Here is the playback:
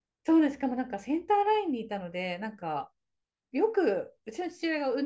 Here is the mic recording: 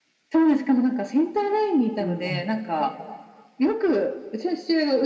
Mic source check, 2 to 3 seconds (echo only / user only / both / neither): both